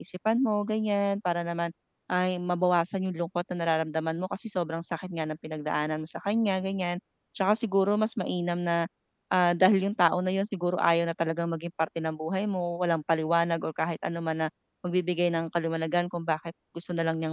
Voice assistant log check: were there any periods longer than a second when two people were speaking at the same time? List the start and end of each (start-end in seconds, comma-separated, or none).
none